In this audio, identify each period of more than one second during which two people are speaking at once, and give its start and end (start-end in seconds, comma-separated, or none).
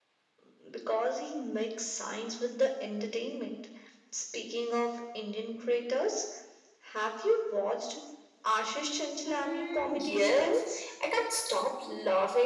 9.2-10.6